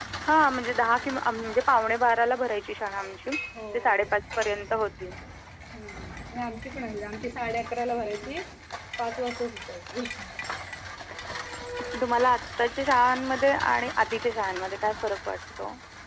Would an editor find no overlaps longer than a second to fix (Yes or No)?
Yes